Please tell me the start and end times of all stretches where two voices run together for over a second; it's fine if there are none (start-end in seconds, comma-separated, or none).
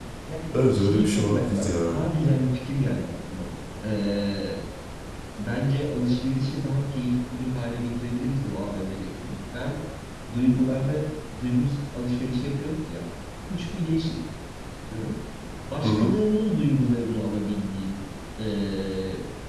0.5-2.0